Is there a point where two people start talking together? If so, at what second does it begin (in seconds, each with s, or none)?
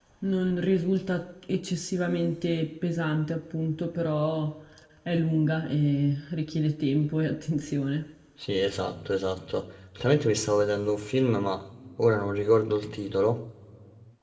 none